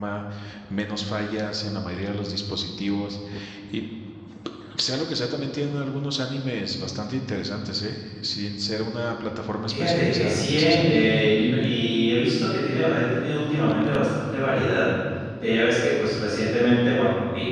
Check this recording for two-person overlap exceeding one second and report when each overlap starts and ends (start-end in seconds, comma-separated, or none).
9.7-11.1